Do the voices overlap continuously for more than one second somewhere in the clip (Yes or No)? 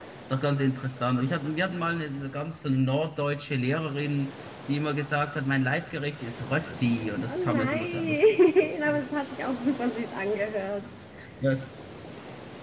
Yes